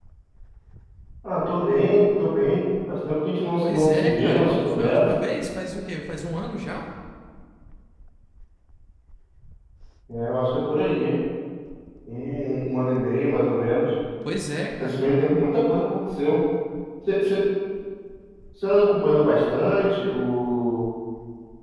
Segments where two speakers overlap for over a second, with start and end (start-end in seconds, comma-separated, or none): 3.6-5.0